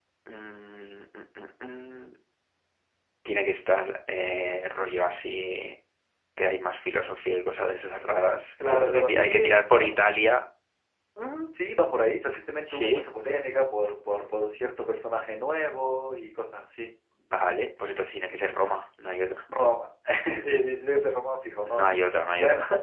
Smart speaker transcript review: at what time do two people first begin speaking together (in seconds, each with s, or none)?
8.6 s